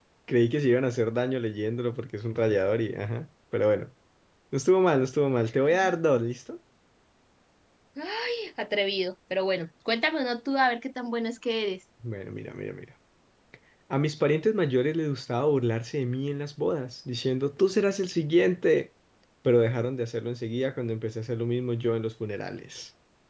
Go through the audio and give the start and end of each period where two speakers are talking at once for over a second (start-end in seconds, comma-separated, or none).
none